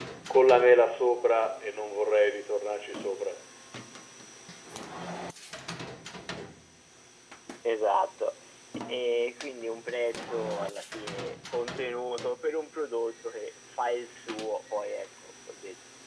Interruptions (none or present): none